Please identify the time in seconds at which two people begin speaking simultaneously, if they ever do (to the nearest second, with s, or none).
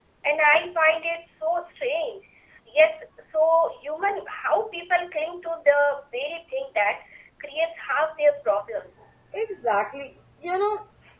none